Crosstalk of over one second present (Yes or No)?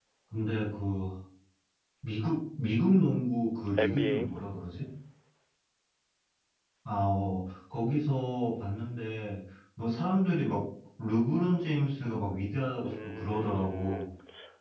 Yes